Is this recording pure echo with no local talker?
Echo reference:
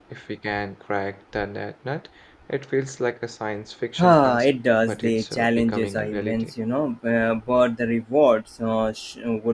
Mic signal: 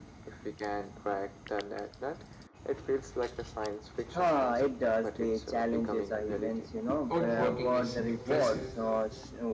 No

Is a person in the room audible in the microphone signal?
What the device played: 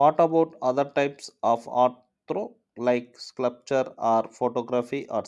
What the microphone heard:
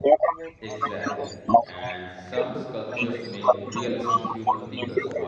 Yes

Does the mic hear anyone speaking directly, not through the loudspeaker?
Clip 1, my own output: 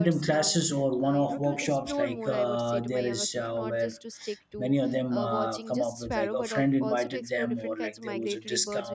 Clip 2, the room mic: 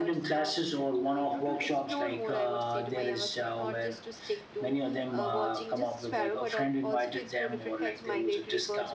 No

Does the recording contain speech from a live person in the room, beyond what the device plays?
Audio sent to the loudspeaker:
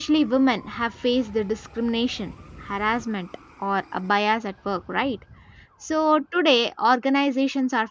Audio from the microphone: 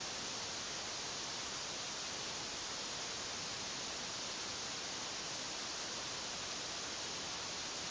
No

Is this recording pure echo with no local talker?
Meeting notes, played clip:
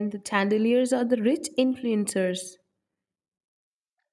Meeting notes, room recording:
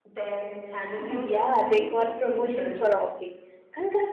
No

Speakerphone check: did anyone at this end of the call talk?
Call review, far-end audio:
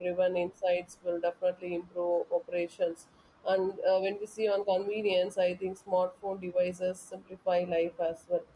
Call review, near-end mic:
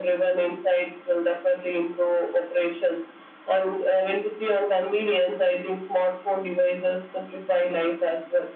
No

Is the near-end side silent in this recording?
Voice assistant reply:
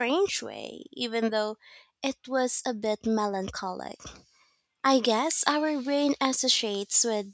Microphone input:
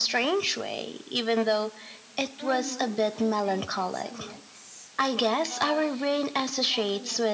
No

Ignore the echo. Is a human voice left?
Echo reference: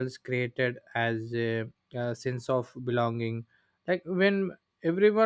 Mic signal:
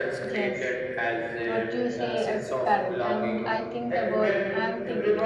Yes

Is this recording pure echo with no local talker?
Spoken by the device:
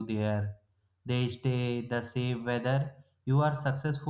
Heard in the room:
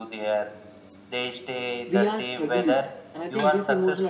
No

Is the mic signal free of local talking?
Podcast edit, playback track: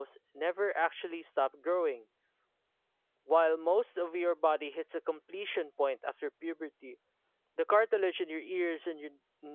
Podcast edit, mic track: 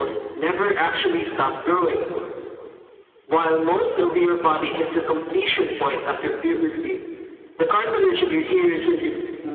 Yes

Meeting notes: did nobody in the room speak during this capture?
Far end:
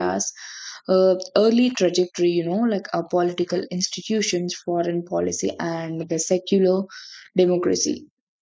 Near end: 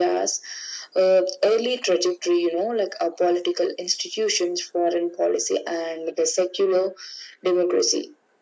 Yes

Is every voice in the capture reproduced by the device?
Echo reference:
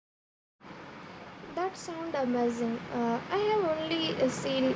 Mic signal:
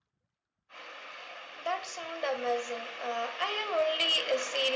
Yes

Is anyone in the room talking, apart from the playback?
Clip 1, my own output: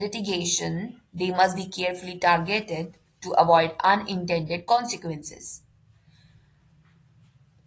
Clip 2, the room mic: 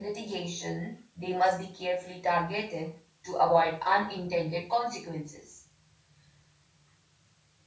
No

